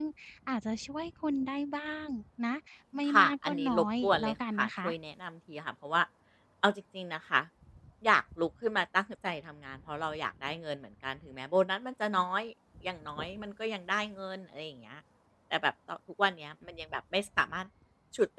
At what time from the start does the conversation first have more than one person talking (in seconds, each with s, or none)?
3.1 s